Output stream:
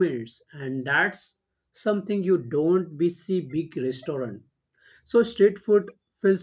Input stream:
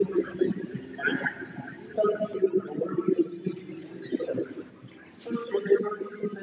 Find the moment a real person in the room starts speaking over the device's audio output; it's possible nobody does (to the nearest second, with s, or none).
none